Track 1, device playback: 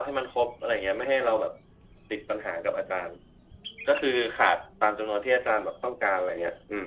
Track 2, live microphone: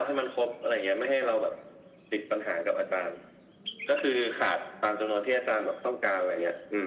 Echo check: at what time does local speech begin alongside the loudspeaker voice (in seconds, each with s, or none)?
none